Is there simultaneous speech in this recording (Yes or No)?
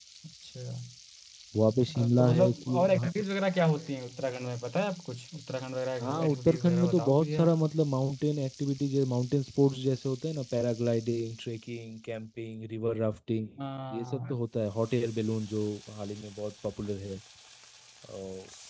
Yes